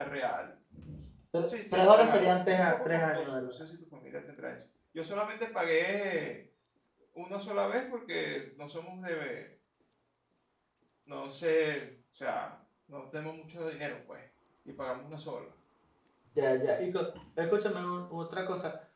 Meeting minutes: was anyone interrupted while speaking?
Yes, from 1.5 s

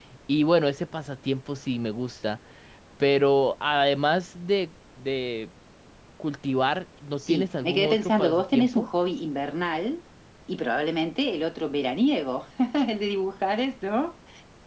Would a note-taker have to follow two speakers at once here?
Yes, from 7.2 s

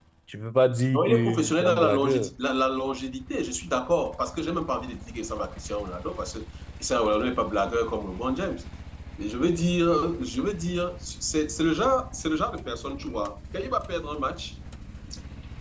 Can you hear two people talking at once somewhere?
Yes, from 0.9 s

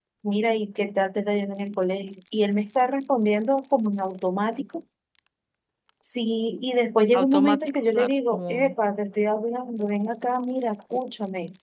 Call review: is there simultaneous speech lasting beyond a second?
Yes, from 7.1 s

